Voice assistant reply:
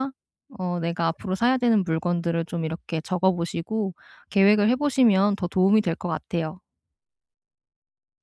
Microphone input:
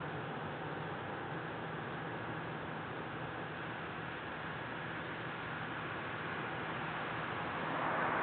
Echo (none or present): none